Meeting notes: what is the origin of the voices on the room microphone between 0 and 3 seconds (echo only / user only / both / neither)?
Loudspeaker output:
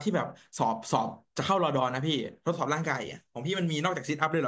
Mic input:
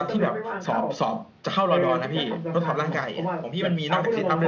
both